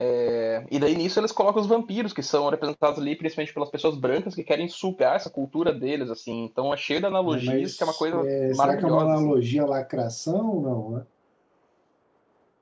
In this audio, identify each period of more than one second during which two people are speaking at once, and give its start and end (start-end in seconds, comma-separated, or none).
7.3-9.2